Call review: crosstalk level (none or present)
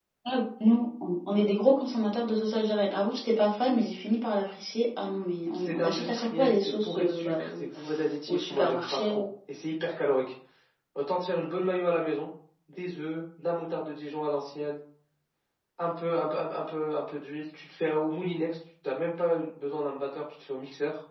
present